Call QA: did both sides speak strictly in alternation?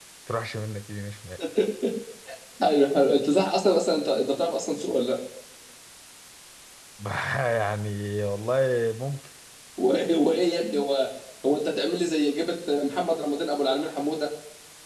Yes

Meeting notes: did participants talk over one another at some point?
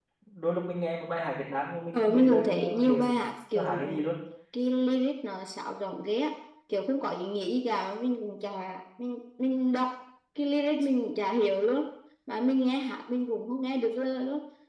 Yes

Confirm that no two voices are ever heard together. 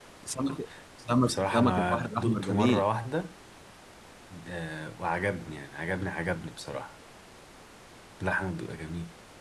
No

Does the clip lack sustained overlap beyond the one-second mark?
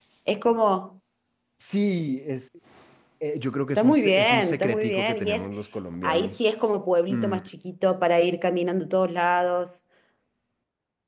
No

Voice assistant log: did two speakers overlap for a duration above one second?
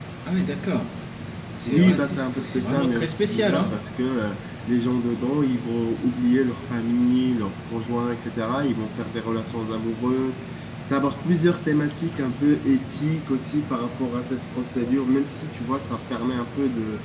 Yes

